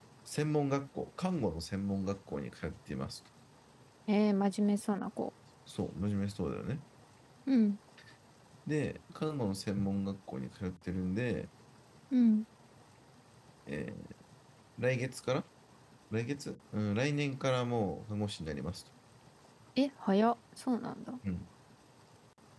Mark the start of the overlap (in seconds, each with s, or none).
none